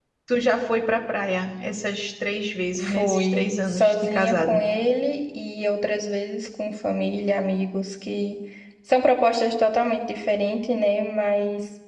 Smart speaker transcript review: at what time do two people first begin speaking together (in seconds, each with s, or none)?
2.8 s